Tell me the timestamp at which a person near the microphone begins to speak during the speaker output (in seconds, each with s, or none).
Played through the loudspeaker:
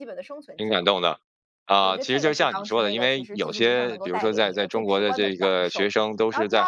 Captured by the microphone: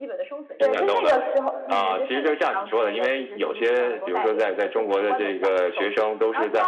0.6 s